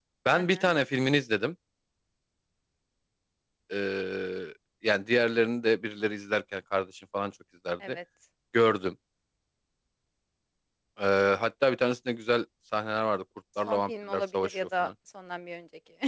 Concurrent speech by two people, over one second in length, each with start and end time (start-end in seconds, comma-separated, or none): 13.7-14.9